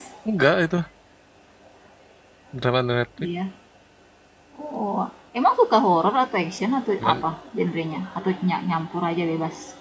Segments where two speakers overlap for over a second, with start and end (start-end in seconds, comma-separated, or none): none